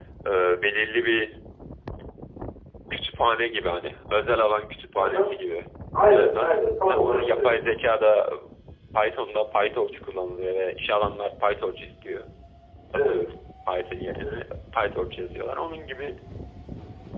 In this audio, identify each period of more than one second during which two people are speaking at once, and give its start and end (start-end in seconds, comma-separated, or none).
6.1-7.5